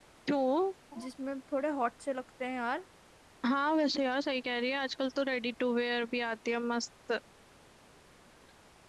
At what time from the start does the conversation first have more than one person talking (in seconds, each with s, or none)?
none